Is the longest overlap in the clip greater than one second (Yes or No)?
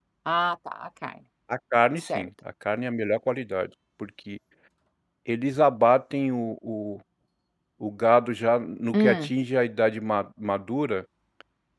No